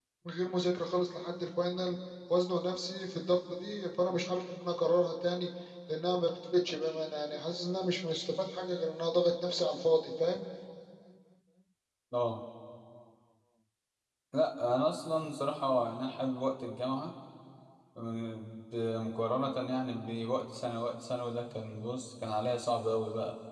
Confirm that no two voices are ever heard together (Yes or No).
Yes